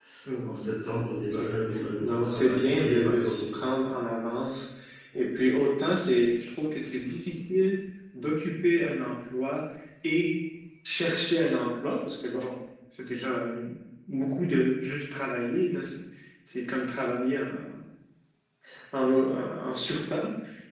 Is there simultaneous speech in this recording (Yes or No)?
Yes